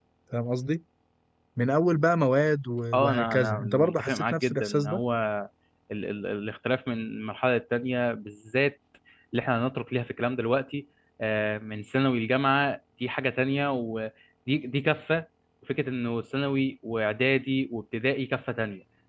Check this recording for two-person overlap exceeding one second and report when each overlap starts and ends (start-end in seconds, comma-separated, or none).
2.9-5.0